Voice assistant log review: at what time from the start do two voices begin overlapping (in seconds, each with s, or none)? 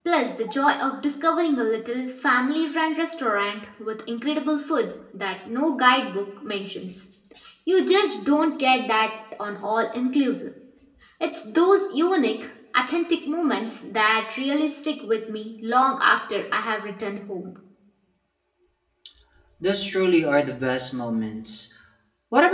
none